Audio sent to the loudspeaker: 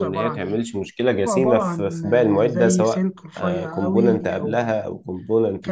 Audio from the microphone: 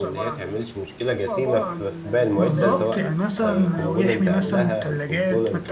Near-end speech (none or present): present